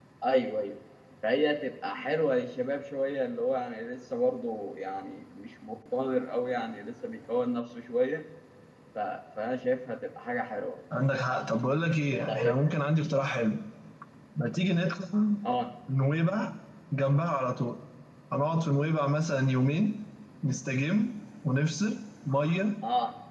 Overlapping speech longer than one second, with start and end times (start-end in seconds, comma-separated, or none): none